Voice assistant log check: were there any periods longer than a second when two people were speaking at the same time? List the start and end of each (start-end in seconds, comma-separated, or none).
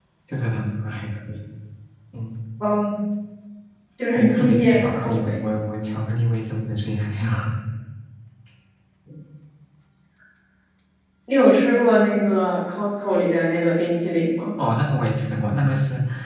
4.2-5.5